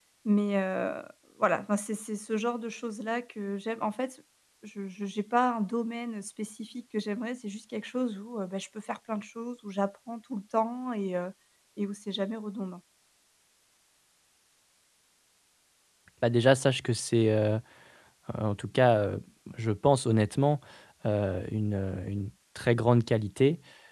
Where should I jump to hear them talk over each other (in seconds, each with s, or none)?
none